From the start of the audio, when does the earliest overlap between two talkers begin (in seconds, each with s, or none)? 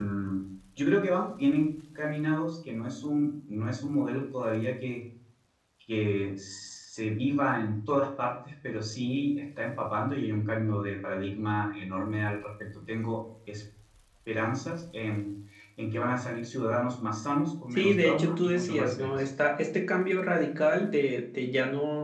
17.7 s